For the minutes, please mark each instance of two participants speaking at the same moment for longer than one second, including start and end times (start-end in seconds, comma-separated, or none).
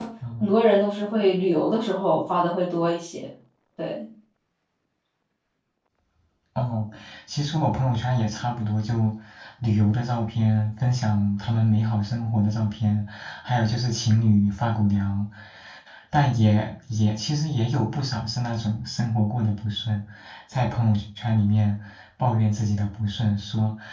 none